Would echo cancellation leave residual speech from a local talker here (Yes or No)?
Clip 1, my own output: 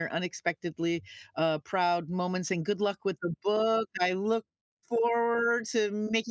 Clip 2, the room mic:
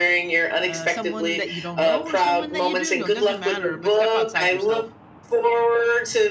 Yes